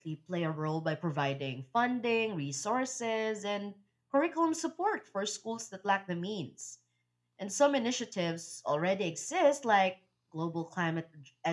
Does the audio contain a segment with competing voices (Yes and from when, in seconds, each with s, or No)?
No